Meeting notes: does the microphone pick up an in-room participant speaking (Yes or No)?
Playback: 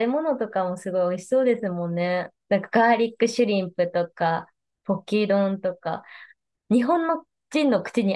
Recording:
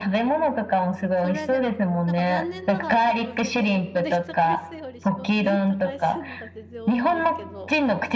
Yes